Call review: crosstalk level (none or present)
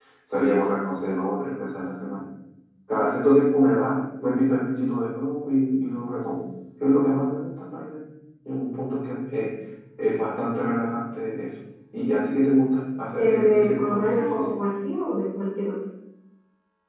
present